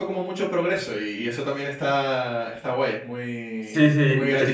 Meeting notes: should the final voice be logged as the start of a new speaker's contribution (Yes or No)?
Yes